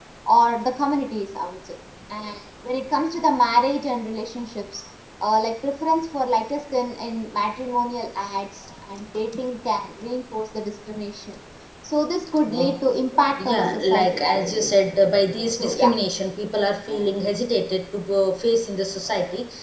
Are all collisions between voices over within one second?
No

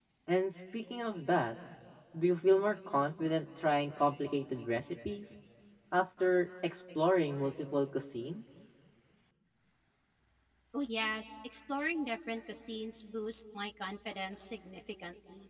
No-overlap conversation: Yes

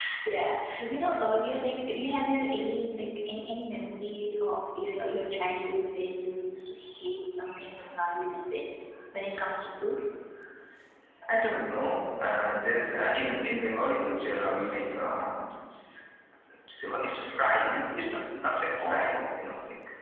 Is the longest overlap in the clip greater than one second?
No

